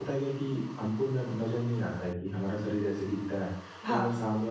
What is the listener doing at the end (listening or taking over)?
listening